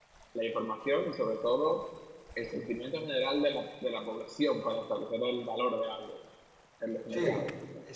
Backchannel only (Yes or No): No